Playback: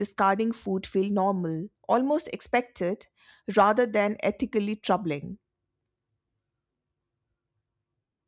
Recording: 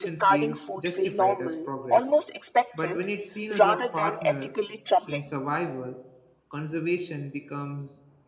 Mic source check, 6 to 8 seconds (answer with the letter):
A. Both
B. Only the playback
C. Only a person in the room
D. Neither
C